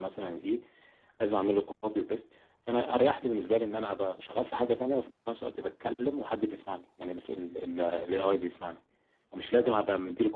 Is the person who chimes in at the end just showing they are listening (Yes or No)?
Yes